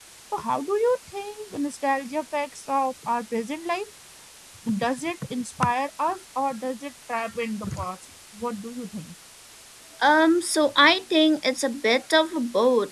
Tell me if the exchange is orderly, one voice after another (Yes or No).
Yes